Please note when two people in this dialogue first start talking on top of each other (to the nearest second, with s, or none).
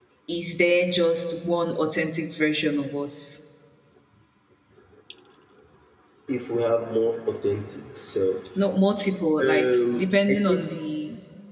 9 s